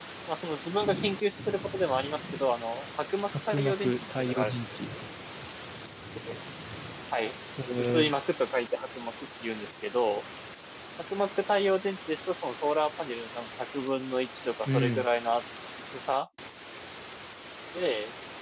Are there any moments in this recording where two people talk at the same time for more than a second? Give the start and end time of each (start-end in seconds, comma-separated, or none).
3.3-4.8